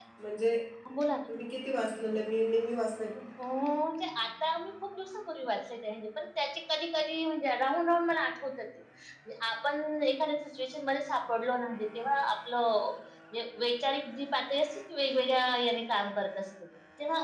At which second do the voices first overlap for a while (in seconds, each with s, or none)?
none